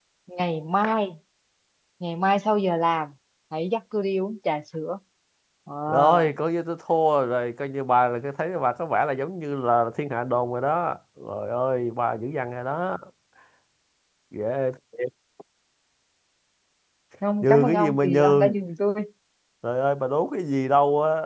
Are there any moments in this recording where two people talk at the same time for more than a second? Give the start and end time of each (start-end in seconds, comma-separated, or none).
17.4-18.7